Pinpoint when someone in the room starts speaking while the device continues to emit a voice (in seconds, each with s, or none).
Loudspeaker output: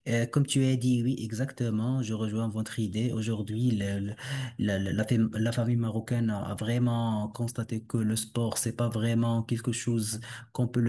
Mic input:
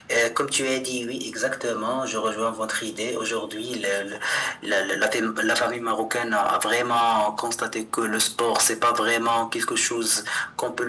none